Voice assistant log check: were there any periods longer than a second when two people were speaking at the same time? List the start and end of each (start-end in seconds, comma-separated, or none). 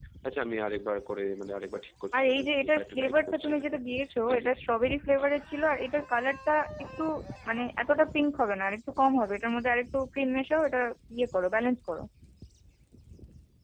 2.1-3.6